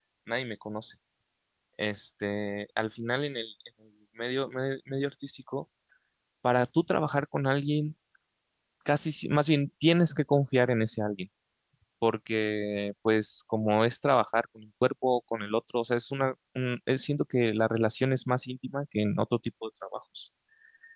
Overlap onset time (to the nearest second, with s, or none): none